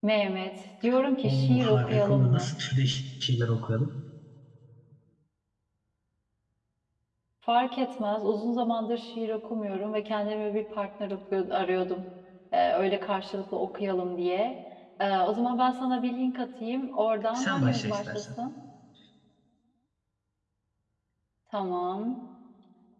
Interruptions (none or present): present